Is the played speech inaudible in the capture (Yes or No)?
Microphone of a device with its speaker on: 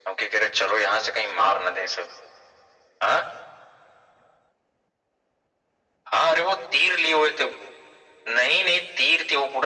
No